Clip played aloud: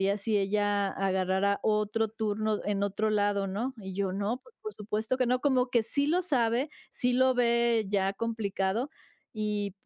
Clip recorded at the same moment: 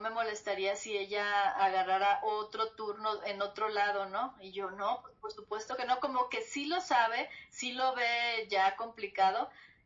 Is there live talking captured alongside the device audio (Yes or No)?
No